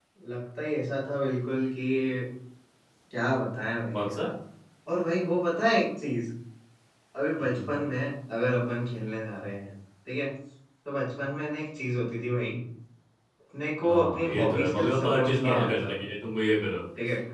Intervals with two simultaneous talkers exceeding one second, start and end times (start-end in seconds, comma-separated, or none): 13.8-15.9